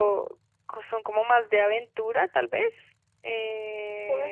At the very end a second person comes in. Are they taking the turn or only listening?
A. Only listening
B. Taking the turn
B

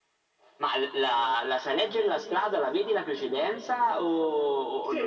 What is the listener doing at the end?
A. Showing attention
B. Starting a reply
B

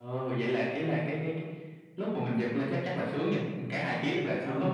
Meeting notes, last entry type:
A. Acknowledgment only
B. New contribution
A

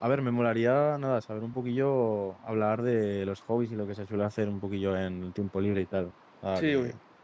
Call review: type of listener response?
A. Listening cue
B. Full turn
B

